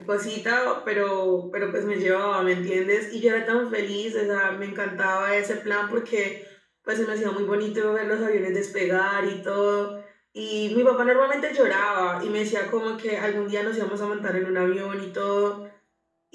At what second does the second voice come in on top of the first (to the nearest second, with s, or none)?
none